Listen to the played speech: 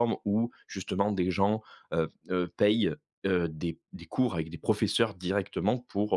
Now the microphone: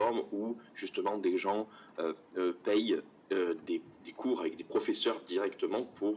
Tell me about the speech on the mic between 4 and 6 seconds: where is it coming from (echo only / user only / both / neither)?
echo only